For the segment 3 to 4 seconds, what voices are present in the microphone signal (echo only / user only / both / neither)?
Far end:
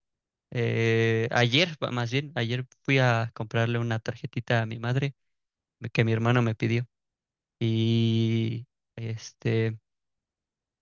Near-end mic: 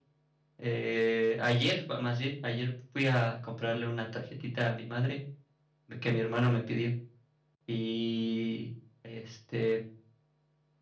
echo only